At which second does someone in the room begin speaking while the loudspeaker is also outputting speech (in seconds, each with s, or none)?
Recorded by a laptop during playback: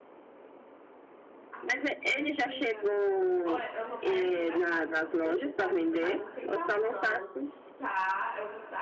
1.5 s